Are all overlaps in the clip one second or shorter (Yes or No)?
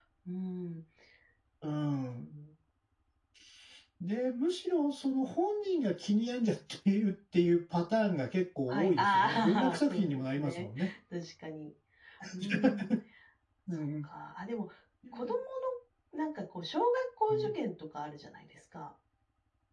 No